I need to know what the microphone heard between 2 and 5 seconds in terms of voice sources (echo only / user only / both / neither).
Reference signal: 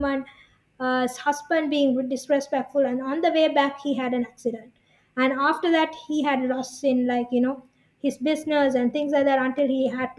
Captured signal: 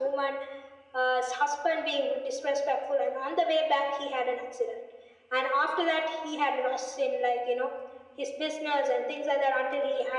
echo only